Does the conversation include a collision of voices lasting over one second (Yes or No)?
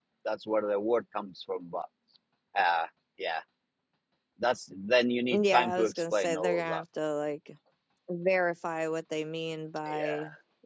Yes